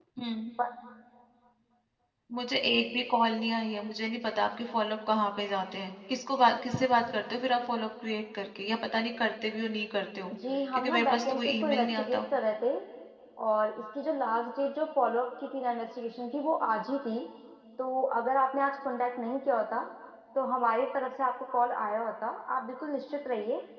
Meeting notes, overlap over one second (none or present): present